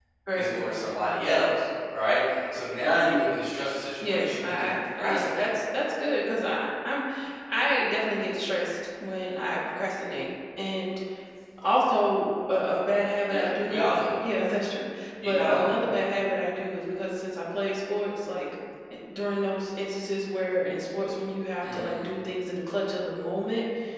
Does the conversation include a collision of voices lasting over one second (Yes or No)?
Yes